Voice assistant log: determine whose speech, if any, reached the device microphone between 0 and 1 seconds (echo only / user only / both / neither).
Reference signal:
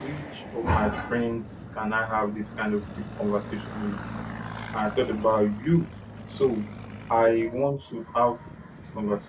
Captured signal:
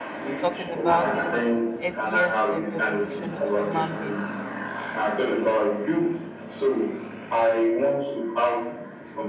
both